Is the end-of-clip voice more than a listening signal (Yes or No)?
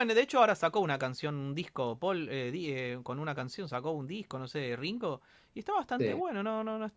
No